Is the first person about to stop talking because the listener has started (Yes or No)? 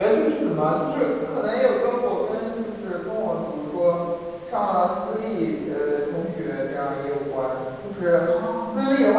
No